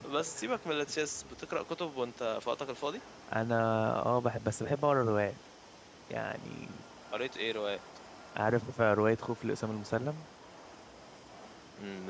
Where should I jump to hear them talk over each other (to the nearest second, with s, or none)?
none